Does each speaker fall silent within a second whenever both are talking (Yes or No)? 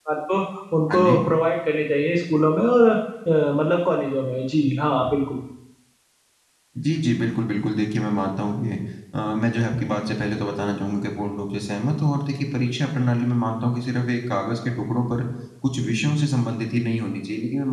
Yes